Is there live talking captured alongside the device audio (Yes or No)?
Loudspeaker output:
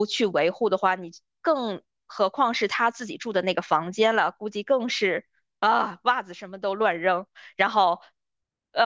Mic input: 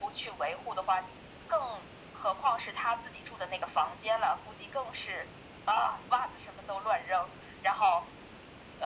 No